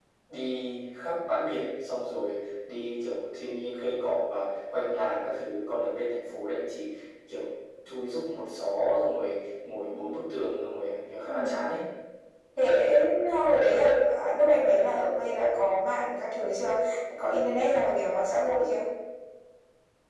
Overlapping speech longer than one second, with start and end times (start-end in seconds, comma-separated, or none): none